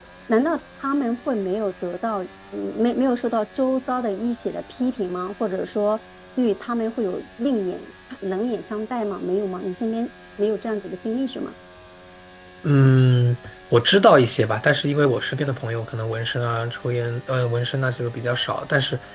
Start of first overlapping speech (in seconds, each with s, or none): none